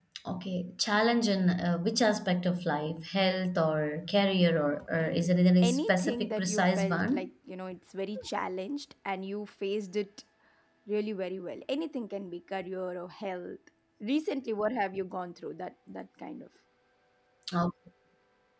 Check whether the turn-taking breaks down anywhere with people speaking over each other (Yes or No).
Yes